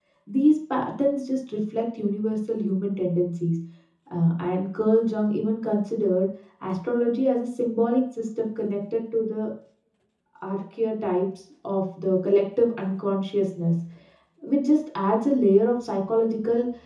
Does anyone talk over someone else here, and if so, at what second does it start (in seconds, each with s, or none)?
none